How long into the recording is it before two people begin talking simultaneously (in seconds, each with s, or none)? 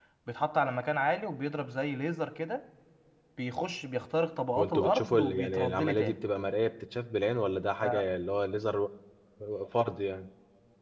4.6 s